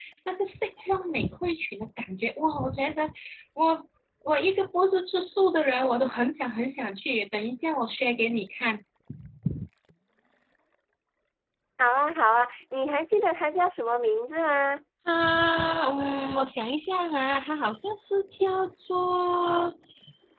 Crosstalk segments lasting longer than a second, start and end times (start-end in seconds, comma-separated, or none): none